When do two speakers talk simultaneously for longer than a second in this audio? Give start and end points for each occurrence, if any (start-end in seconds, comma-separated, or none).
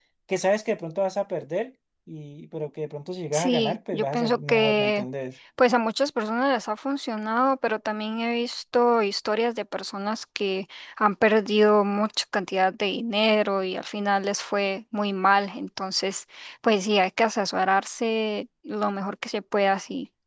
3.3-5.0